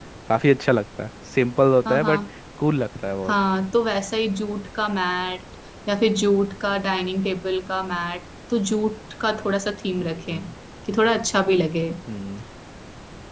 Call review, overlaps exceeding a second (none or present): none